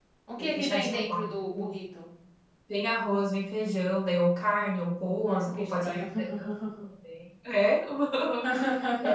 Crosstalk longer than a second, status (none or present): present